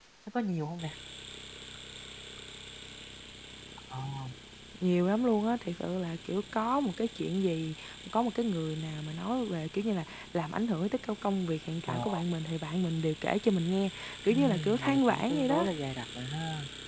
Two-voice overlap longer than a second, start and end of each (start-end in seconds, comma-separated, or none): 14.3-15.7